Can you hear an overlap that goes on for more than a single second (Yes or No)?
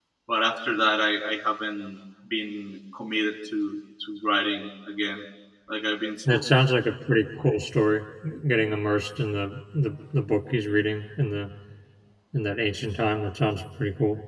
No